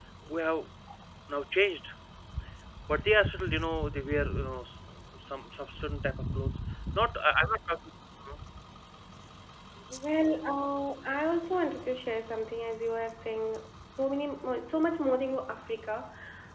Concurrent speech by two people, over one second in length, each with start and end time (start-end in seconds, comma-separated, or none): none